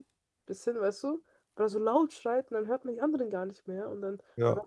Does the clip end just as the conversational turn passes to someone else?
No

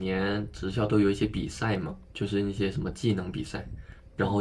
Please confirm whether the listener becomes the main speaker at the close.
No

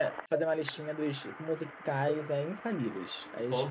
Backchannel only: No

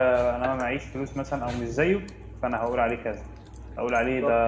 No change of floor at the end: Yes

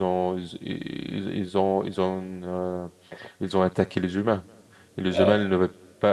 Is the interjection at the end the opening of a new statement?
No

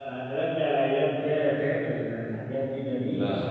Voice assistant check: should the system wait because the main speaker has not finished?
No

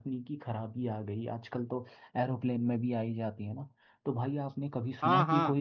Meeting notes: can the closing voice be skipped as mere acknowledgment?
Yes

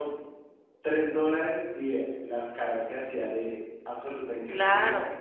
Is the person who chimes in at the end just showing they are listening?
No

